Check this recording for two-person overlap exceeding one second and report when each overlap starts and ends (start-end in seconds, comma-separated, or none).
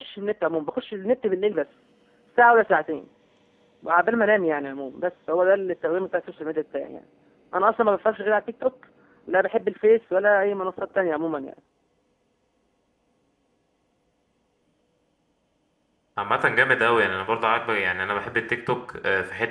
none